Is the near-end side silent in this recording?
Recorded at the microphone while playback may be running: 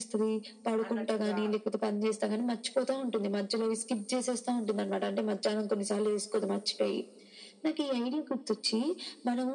No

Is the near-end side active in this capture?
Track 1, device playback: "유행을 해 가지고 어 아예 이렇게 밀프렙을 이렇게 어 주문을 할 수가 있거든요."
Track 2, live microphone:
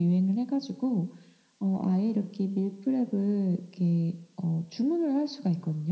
No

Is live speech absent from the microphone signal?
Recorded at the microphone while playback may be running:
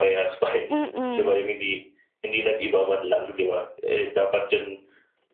No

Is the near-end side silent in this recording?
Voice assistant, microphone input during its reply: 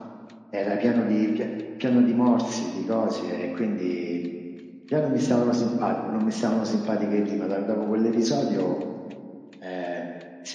Yes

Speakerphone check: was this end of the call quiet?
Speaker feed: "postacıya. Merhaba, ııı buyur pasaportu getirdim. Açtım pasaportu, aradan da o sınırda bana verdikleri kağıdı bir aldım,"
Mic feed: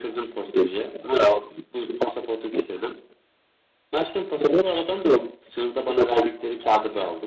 Yes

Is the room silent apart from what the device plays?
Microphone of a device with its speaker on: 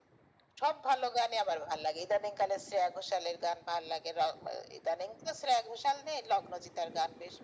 Yes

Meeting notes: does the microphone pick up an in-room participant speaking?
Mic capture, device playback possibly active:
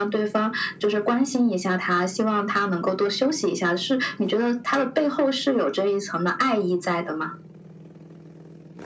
No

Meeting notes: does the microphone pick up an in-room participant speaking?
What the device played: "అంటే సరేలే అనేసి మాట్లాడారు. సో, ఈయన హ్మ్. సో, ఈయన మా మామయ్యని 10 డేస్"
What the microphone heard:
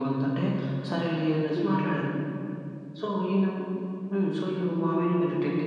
Yes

